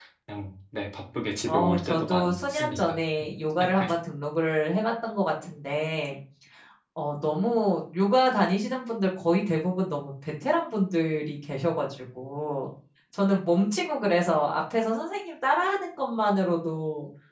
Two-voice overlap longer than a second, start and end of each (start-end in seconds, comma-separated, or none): 1.5-3.0